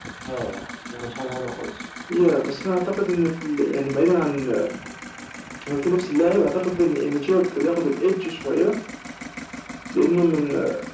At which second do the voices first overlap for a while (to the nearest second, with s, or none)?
none